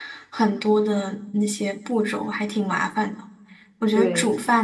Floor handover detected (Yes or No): No